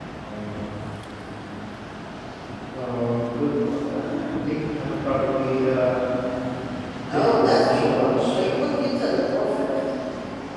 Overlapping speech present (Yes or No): Yes